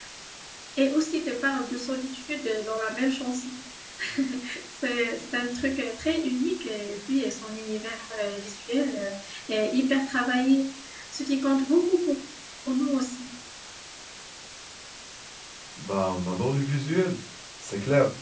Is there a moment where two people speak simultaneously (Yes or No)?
No